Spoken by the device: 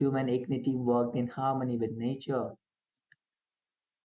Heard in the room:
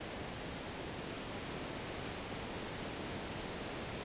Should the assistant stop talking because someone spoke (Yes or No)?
No